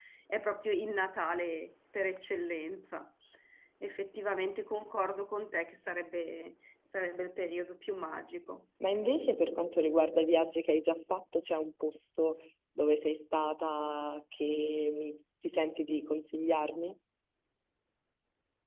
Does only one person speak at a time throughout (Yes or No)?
Yes